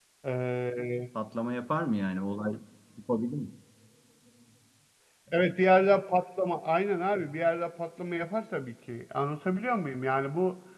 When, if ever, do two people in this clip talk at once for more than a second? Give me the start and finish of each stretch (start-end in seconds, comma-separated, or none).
none